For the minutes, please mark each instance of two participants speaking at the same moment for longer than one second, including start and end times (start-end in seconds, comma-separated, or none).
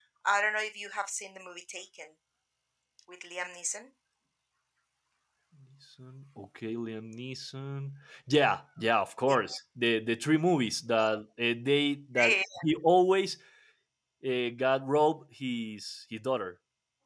none